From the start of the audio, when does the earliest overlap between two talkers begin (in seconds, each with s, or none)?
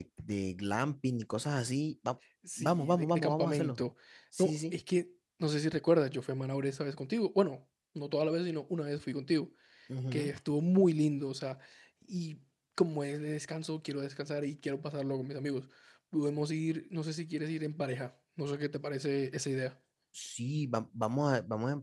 2.6 s